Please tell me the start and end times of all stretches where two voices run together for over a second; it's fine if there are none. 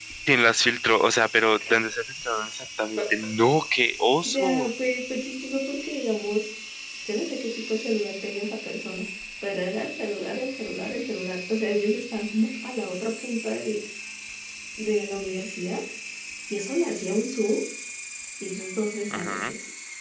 none

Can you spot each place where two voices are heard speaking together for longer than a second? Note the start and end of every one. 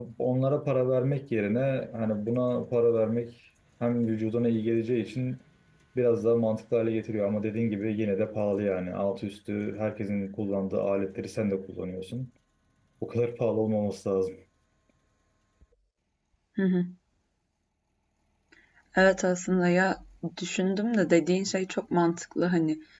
none

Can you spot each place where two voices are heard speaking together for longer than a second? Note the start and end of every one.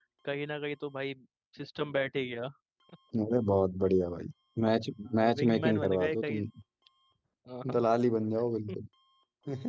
5.1-6.4

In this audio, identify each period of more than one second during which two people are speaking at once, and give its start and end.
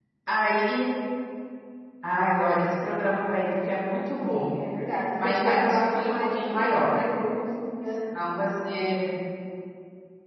5.2-6.9

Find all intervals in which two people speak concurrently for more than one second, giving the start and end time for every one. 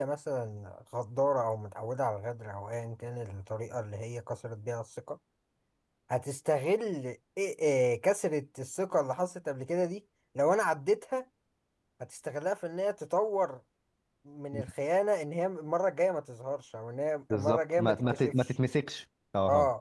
17.3-18.5

